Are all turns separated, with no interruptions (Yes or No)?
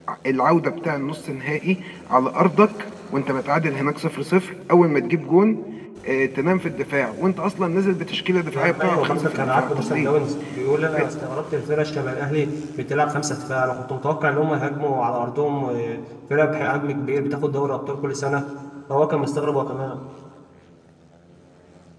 No